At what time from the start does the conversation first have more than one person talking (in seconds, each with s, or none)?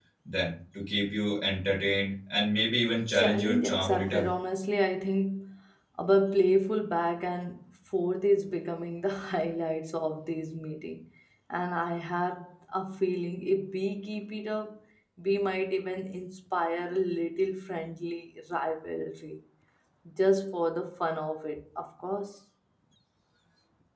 3.1 s